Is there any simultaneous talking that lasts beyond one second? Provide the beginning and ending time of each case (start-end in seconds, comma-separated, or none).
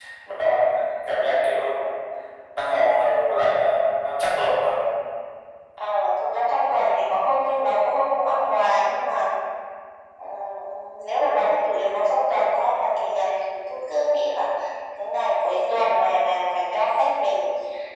none